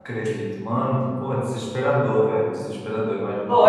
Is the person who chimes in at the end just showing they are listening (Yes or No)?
No